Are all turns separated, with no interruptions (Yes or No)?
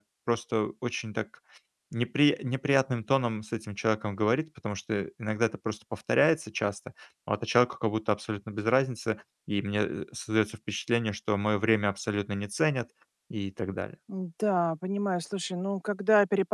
Yes